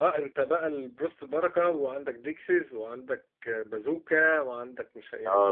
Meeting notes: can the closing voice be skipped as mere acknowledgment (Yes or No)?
No